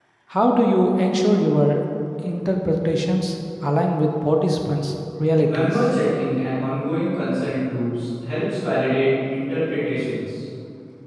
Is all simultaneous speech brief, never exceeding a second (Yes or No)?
Yes